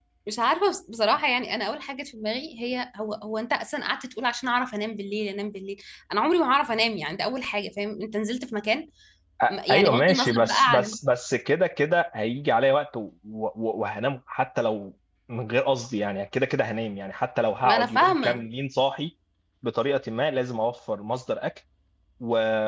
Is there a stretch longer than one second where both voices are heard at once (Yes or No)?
Yes